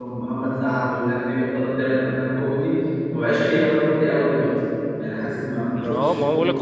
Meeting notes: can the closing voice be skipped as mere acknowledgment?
No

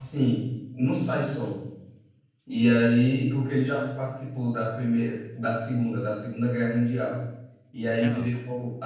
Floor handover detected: No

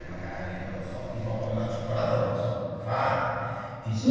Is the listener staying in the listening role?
Yes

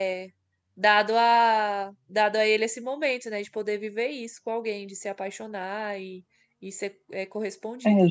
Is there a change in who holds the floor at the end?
Yes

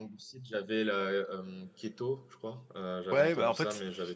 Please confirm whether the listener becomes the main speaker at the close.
Yes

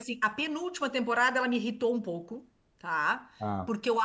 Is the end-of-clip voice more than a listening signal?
No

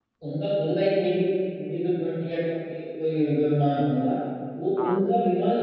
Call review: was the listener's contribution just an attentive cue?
Yes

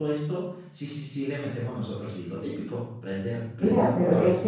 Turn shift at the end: Yes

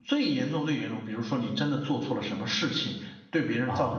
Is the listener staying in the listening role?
Yes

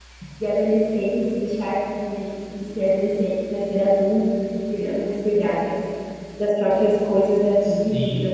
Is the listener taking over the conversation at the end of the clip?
Yes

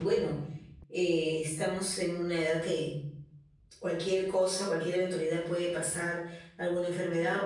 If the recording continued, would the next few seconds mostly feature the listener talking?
No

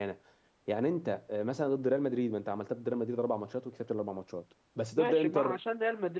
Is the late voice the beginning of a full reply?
Yes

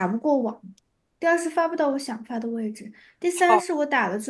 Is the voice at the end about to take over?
No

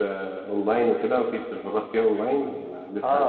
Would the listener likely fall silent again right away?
No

